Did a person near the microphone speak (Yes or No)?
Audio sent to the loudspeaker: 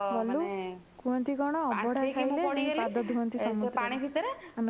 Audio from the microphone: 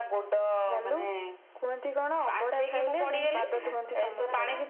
Yes